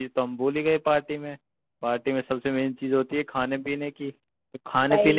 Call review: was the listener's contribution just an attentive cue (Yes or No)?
Yes